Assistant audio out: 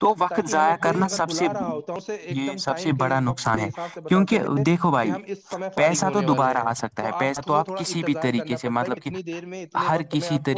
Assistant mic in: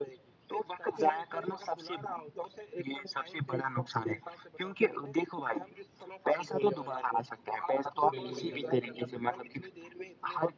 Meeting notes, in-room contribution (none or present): present